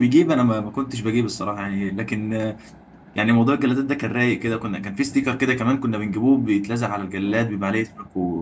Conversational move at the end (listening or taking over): listening